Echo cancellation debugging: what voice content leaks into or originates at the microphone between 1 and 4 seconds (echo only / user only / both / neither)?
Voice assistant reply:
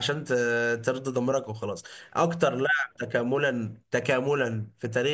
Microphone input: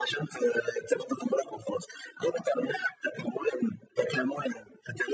echo only